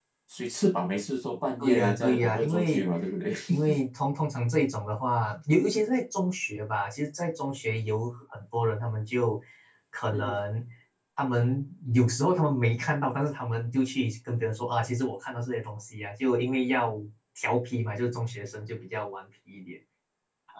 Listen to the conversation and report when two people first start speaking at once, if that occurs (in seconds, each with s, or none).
1.6 s